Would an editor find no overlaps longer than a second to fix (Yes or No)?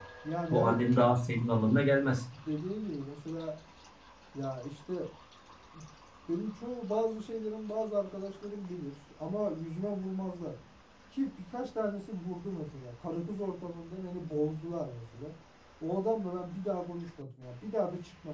Yes